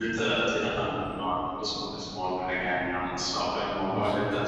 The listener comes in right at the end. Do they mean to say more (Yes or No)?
No